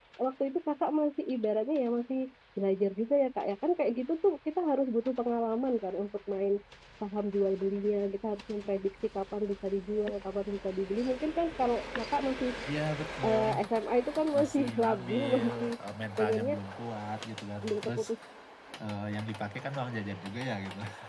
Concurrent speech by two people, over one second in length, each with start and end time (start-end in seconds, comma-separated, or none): 14.4-15.7